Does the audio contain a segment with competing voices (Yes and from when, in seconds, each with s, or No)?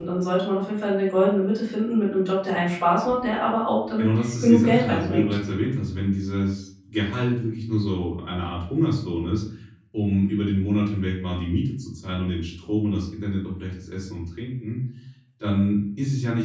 Yes, from 4.0 s